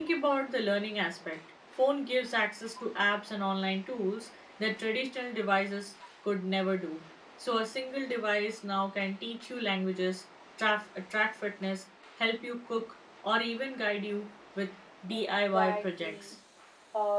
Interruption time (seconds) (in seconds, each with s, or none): 15.1 s